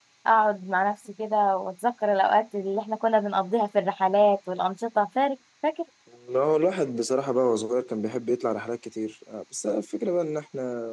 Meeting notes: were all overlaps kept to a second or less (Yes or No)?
Yes